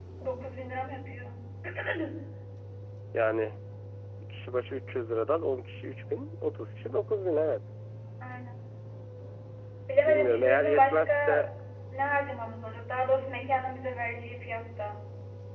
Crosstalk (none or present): present